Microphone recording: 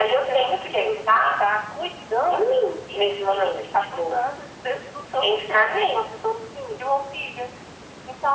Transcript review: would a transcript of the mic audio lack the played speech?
No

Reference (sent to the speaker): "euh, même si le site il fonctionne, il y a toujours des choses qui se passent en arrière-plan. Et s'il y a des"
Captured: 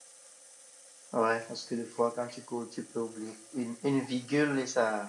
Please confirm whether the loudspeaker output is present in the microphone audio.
No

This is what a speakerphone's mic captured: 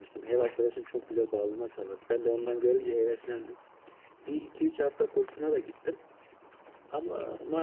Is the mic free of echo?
Yes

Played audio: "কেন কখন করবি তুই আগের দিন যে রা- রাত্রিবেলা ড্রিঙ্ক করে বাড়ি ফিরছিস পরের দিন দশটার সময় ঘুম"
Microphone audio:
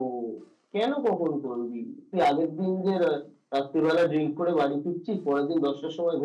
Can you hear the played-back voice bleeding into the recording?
Yes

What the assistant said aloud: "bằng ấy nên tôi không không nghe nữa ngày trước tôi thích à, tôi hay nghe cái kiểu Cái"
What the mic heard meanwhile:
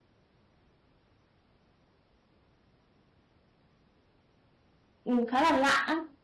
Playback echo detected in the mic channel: No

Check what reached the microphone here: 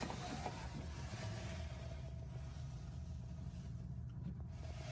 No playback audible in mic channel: Yes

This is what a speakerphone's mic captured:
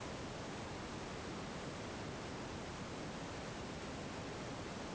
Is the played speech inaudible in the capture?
Yes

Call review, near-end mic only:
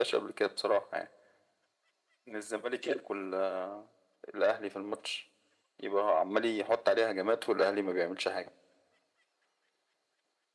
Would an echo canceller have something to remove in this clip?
Yes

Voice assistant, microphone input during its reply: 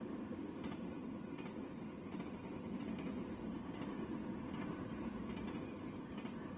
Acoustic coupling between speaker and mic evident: No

